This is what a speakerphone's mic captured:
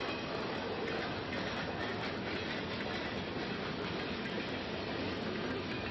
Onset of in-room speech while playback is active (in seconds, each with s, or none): none